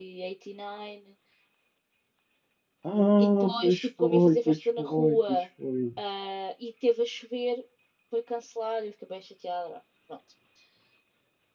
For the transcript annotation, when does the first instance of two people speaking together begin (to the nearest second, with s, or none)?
3 s